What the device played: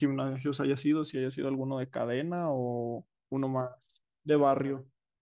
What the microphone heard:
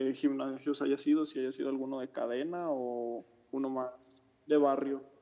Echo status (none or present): present